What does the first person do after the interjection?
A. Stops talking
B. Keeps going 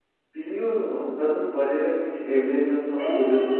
B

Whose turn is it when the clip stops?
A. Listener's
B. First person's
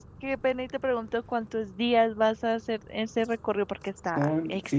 A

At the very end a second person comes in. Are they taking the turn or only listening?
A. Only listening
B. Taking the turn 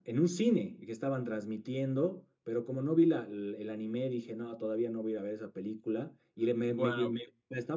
A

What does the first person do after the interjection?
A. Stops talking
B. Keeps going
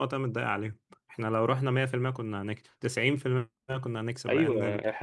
A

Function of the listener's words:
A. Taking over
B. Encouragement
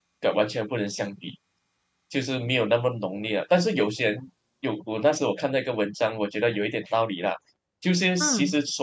B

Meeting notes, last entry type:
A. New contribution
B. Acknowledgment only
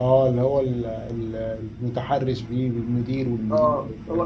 A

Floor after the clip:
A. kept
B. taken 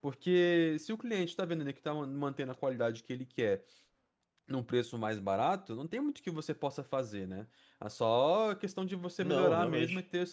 A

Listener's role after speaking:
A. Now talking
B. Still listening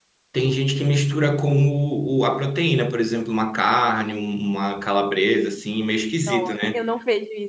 A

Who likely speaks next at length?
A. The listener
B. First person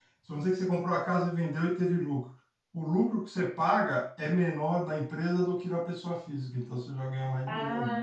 A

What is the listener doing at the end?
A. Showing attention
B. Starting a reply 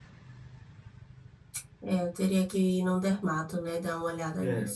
B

